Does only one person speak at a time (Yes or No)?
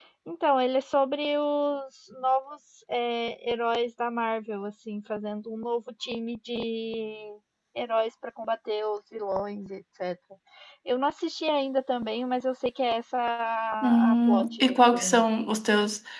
No